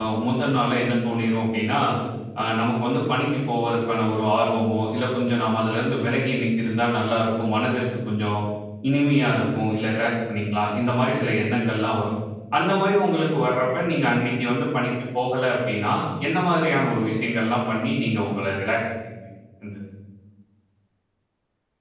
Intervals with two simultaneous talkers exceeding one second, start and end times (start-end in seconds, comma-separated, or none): none